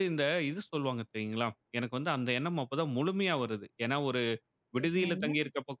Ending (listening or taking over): listening